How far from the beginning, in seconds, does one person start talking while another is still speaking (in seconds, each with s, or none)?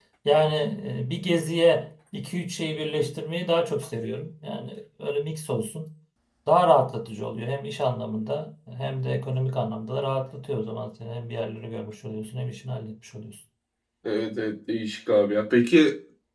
none